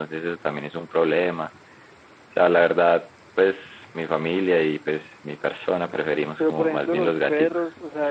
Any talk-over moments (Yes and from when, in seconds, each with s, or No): Yes, from 6.4 s